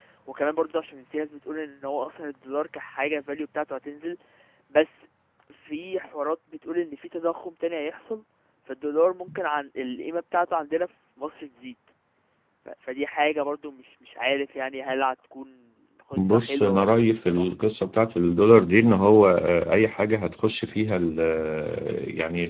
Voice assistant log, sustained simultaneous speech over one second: present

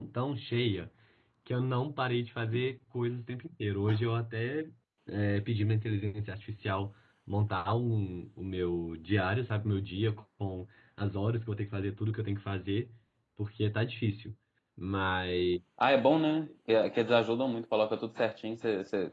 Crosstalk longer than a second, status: none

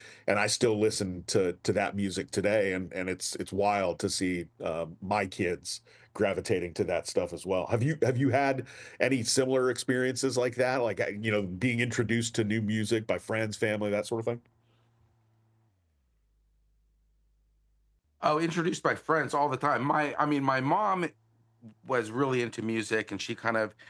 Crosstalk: none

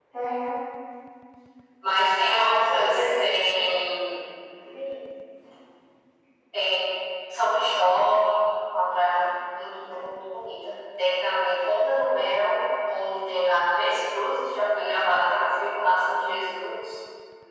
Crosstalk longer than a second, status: present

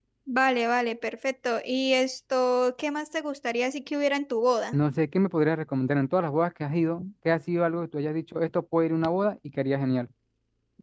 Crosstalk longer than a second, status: none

